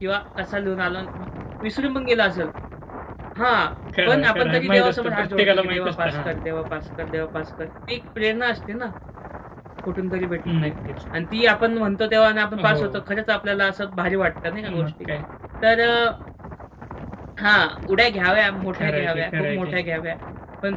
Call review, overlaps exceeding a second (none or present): present